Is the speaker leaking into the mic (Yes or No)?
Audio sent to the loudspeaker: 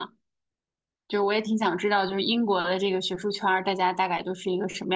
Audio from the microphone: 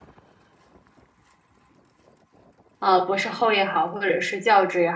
No